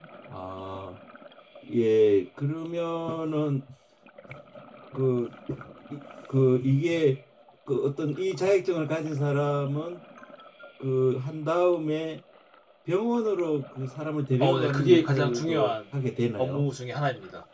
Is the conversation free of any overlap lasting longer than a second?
No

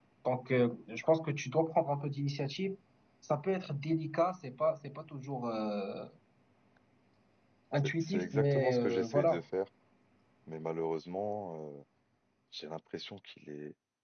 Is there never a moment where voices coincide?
No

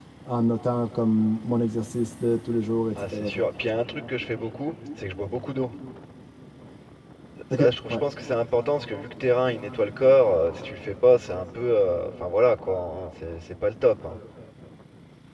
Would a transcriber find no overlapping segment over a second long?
Yes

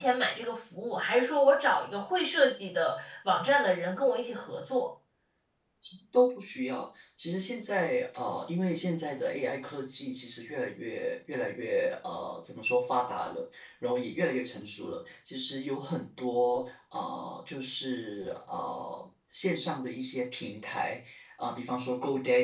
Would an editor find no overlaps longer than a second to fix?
Yes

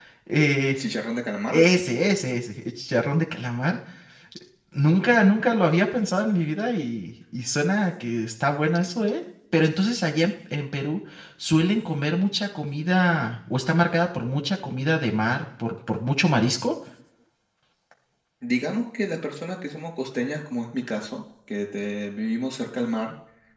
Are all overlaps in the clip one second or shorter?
Yes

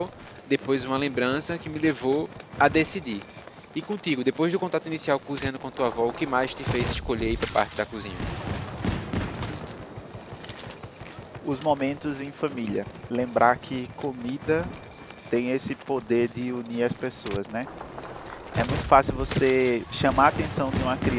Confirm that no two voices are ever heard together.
Yes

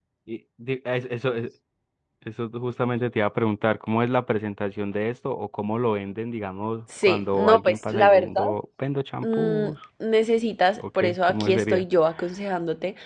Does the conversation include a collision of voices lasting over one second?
Yes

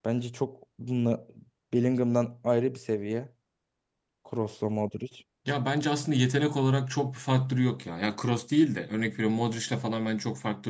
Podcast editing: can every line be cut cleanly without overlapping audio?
Yes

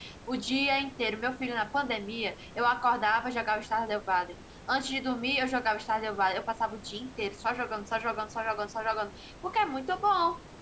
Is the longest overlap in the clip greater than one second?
No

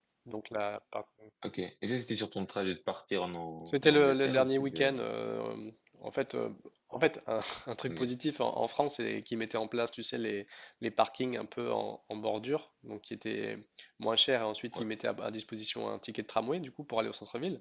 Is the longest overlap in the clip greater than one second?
Yes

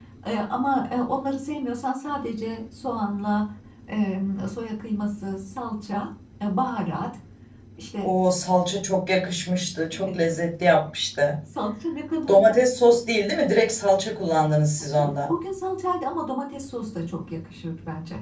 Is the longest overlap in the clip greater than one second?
No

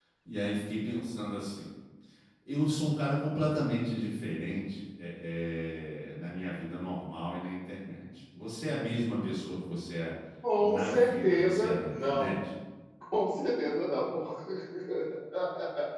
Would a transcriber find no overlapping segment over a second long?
No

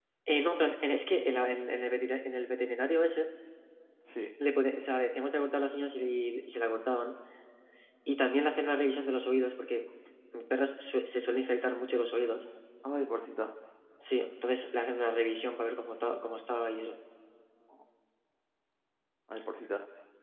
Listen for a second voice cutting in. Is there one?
No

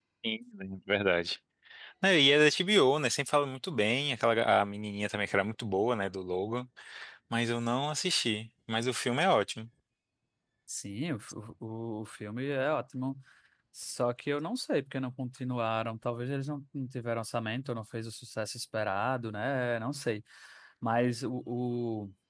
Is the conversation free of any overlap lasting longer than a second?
Yes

